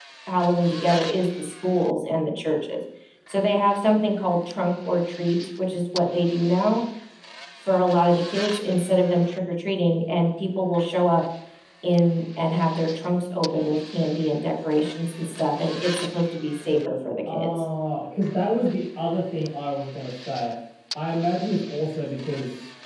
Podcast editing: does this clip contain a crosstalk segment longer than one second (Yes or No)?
No